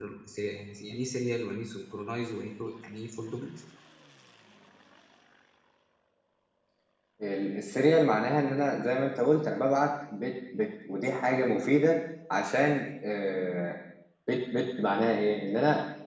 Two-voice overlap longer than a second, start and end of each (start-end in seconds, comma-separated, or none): none